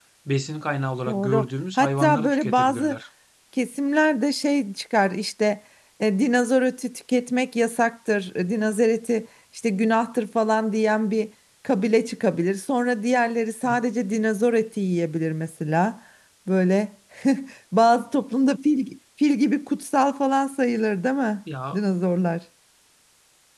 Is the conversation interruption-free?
No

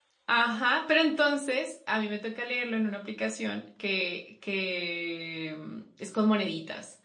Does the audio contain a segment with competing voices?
No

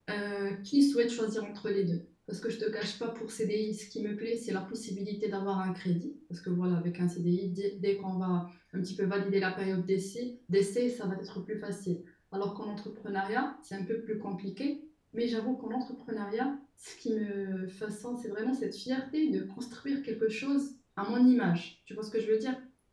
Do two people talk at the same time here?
No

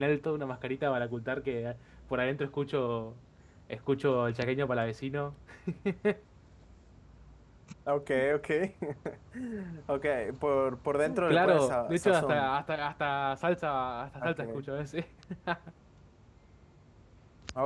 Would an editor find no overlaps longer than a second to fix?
No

